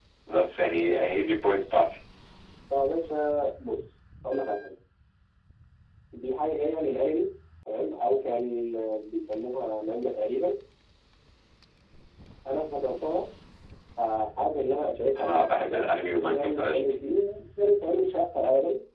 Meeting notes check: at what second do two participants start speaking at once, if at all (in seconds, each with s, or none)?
15.2 s